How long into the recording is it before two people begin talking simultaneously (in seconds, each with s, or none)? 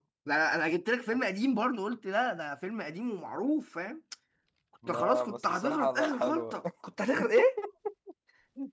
4.9 s